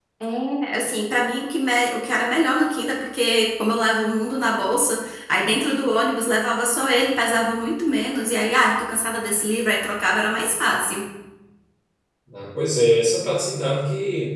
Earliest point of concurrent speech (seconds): none

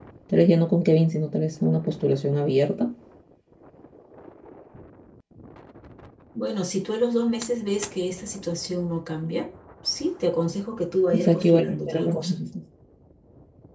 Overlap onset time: 11.1 s

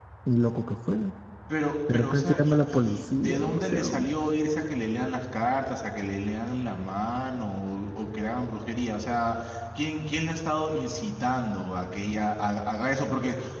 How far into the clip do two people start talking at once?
1.9 s

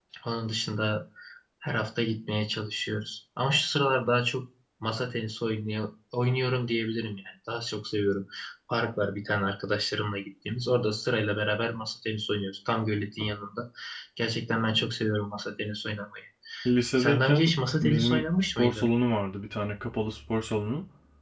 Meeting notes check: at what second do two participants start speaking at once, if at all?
16.9 s

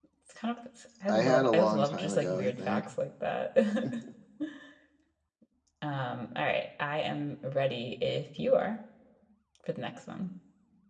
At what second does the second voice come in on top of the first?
1.1 s

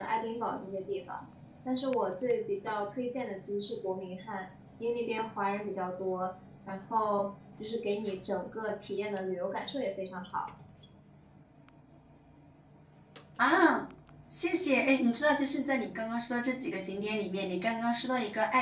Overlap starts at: none

